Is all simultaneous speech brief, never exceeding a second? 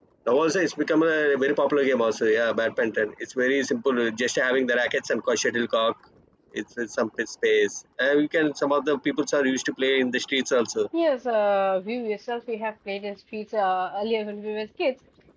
Yes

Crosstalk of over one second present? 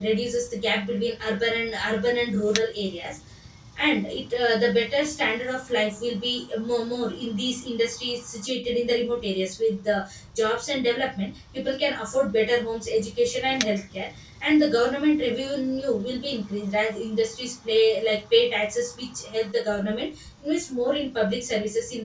No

